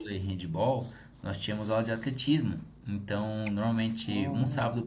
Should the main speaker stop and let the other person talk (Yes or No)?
No